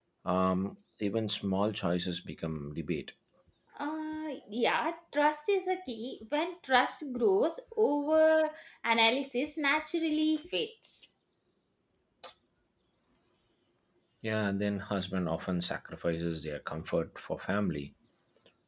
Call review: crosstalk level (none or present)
none